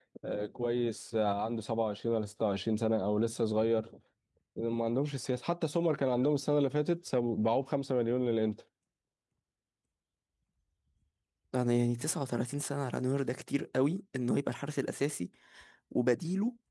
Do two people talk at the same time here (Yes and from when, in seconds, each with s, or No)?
No